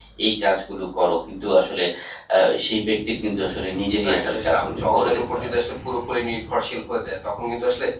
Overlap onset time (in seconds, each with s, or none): 3.6 s